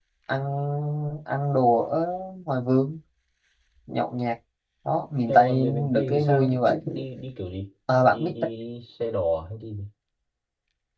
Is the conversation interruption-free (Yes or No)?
No